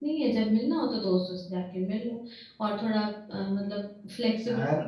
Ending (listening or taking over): listening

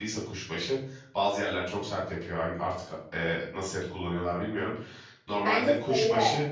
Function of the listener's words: listening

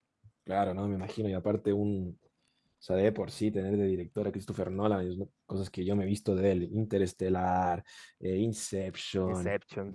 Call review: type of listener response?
listening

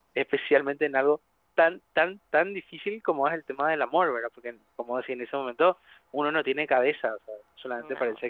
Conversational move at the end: listening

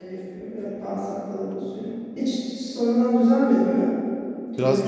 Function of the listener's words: taking over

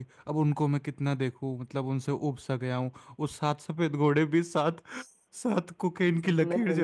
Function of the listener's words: taking over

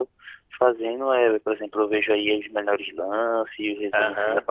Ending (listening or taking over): taking over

